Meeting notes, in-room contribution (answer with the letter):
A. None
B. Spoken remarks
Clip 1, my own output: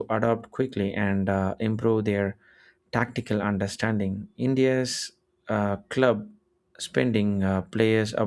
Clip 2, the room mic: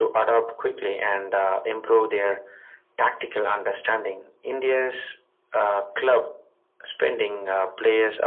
A